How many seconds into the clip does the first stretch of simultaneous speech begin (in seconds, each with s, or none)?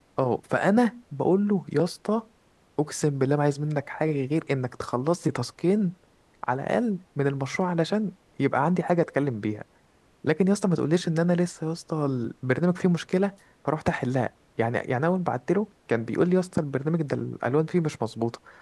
none